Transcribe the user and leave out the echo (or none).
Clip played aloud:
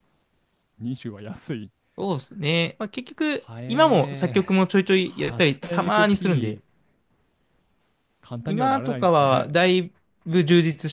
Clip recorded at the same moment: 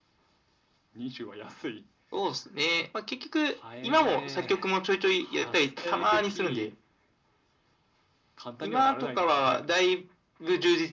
none